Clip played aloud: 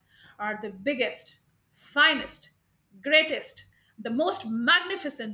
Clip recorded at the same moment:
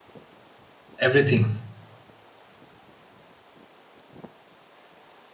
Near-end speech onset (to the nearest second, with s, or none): 1 s